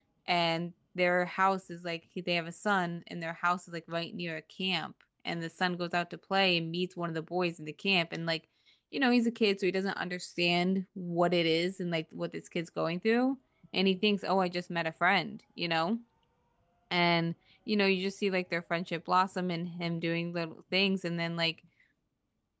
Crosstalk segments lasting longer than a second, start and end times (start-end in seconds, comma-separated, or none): none